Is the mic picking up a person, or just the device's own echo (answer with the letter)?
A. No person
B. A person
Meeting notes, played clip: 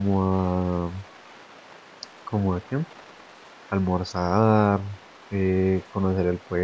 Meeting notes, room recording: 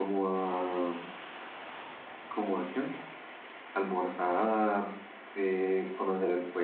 A